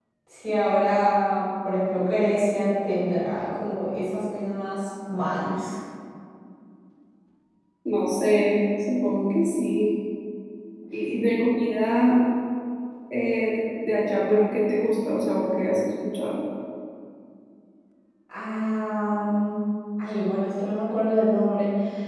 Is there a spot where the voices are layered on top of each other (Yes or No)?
No